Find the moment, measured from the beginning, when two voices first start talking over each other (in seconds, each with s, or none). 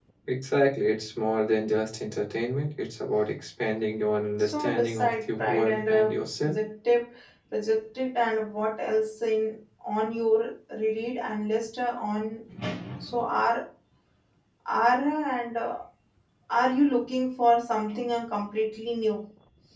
4.4 s